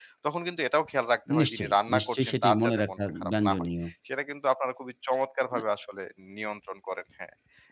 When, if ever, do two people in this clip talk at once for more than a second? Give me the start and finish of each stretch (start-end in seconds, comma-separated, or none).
1.4-3.6